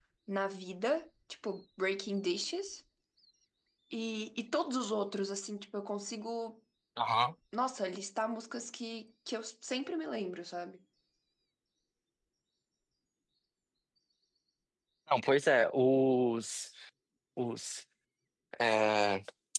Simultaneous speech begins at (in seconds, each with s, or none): none